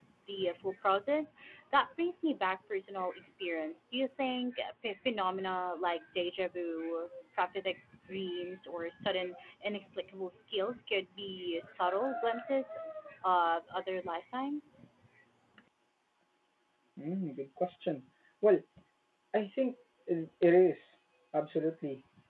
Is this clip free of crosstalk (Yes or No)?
Yes